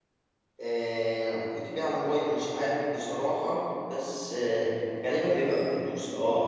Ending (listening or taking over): listening